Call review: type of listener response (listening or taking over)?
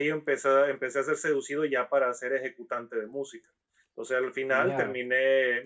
listening